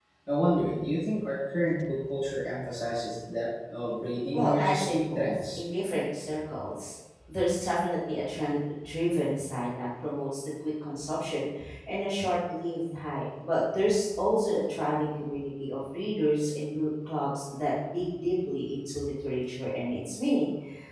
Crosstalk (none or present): present